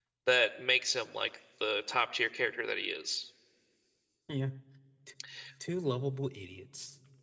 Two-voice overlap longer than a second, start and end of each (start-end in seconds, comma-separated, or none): none